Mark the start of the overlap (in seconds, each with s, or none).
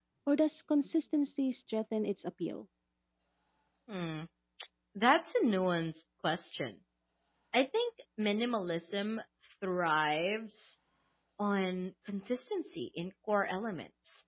none